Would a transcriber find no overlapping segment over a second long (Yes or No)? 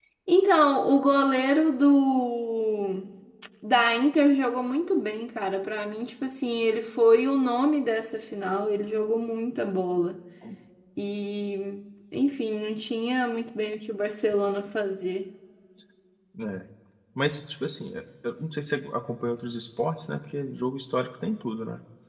Yes